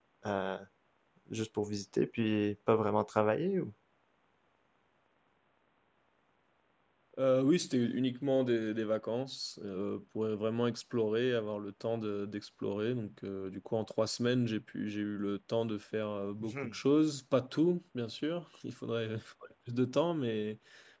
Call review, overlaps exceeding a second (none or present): none